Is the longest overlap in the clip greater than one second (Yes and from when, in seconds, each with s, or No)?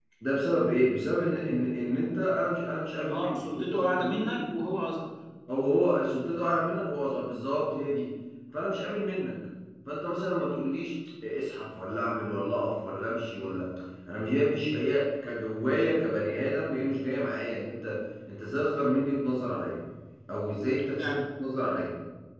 Yes, from 3.0 s